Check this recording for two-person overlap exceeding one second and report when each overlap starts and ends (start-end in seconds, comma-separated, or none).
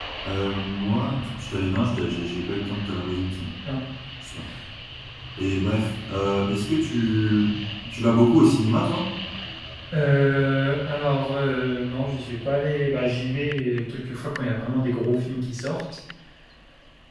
none